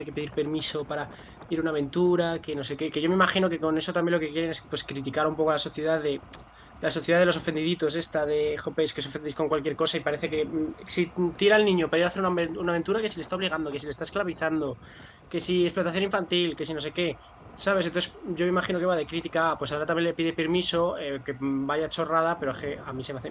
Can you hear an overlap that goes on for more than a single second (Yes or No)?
No